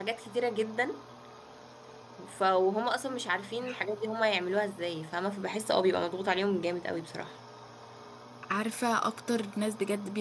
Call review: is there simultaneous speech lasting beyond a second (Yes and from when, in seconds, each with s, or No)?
No